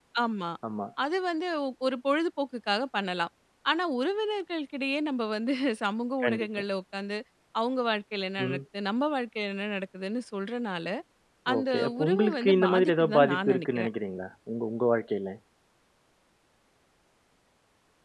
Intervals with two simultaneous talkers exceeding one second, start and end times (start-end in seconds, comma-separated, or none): 11.6-13.9